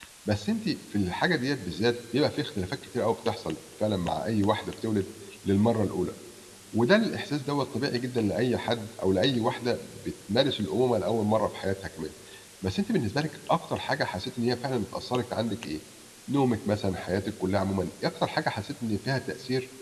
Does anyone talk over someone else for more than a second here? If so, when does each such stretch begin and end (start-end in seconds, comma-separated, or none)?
none